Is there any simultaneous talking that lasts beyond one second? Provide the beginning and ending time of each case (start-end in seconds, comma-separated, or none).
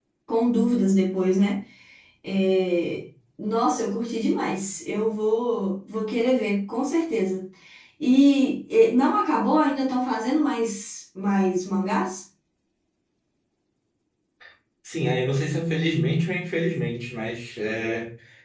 none